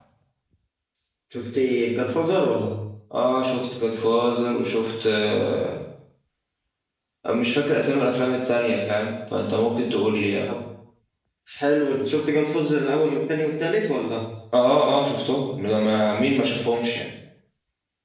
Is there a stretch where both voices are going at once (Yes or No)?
No